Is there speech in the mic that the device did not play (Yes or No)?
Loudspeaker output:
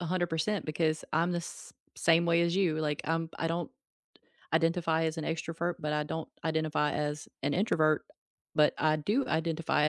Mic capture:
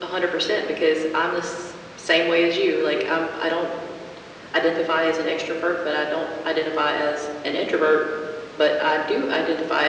No